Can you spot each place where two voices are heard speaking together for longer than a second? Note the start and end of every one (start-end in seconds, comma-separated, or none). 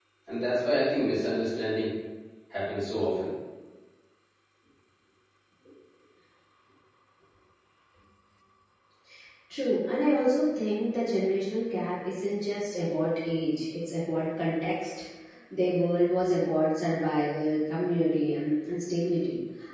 none